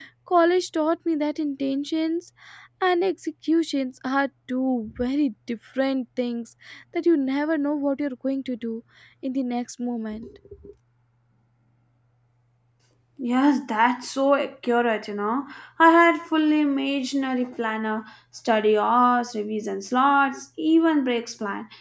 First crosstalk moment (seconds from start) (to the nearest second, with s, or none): none